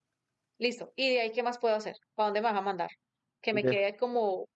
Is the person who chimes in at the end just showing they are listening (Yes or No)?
Yes